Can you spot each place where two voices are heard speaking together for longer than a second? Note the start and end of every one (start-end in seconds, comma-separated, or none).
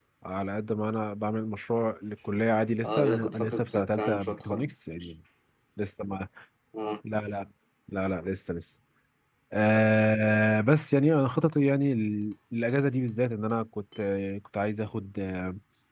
2.8-5.1